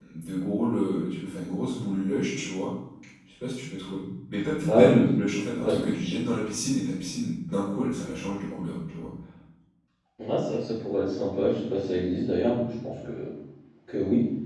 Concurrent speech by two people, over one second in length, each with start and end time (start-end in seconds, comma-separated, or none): none